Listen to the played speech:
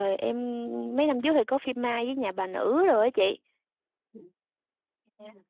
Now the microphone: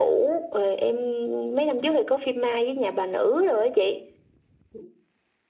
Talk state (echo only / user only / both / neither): echo only